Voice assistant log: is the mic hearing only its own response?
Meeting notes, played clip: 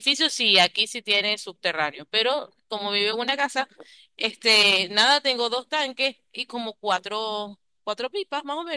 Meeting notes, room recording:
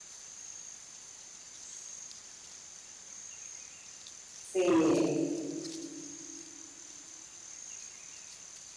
No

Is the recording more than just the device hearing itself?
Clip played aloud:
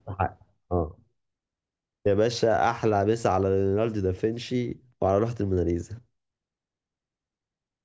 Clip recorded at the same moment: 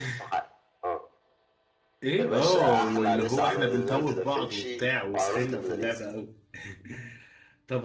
Yes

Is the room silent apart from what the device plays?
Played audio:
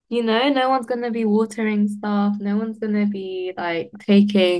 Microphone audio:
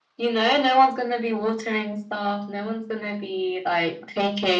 Yes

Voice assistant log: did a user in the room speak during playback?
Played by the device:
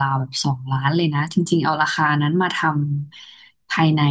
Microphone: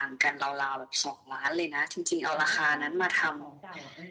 Yes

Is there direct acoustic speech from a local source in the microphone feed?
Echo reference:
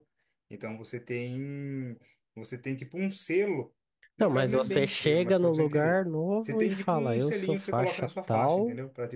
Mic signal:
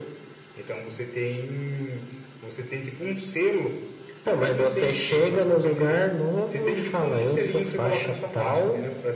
No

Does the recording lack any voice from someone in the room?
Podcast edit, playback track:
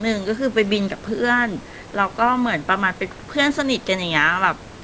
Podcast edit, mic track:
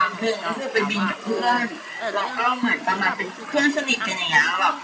No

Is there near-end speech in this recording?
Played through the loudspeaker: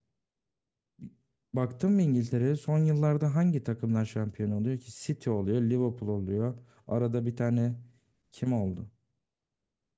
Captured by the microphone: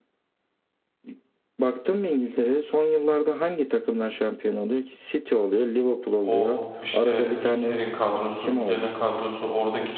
Yes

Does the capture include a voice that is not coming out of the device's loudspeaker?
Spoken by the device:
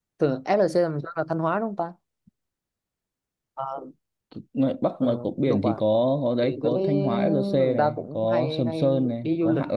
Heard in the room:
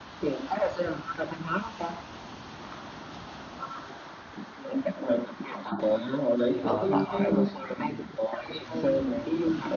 Yes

